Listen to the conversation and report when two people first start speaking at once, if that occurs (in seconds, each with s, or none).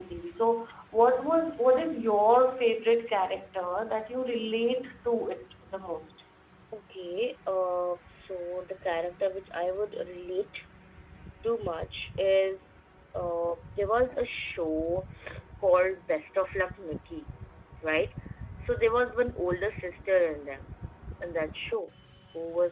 none